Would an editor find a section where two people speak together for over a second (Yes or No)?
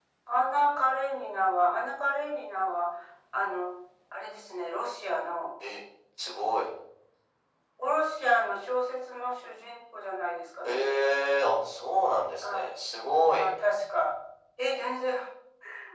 No